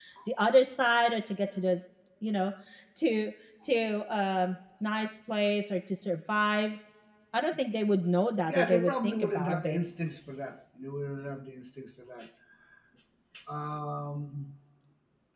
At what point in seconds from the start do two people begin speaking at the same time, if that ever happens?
8.5 s

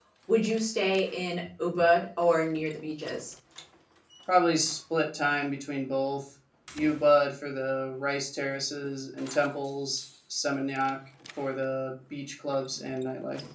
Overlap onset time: none

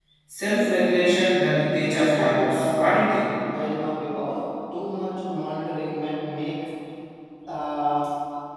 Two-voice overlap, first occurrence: 1.5 s

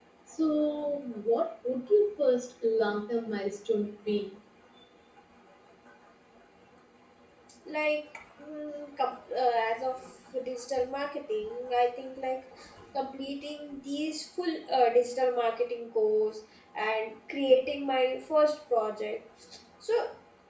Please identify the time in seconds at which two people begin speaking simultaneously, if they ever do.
none

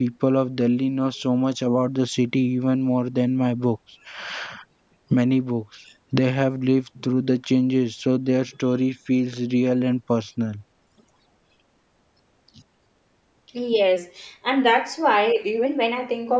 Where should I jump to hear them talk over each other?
none

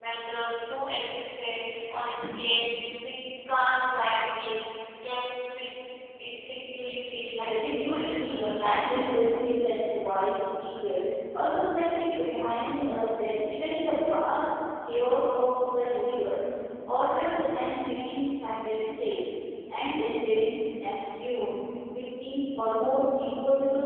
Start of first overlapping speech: 7.4 s

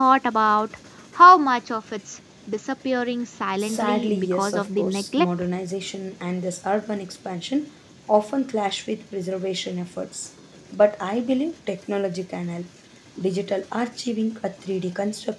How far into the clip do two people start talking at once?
3.6 s

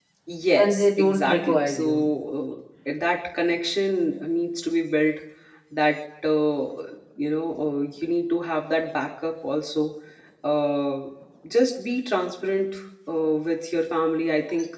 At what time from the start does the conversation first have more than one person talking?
0.6 s

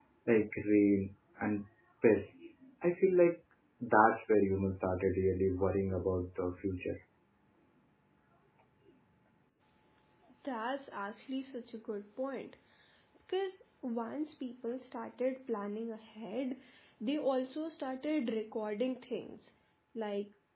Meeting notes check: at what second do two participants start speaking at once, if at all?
none

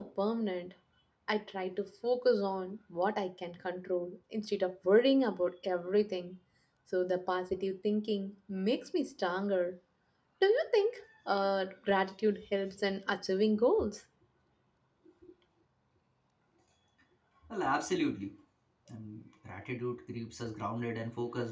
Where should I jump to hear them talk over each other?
none

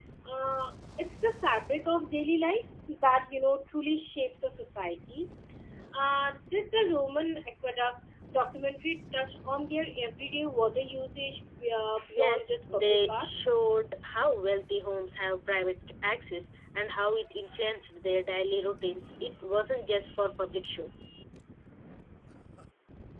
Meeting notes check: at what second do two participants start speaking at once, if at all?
12.1 s

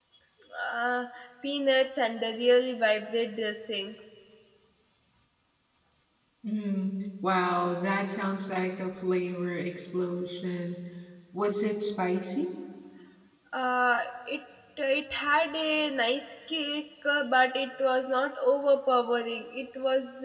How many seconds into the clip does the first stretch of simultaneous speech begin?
none

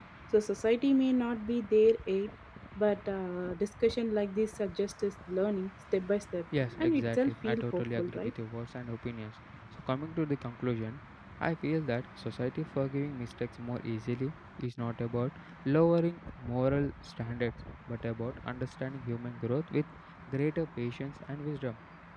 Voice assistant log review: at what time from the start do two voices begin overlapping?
6.8 s

